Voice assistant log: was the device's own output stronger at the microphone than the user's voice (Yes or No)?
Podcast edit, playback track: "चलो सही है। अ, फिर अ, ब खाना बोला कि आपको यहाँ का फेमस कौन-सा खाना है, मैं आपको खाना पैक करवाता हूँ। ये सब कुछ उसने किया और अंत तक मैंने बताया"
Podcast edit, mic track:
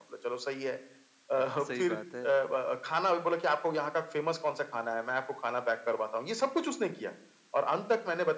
Yes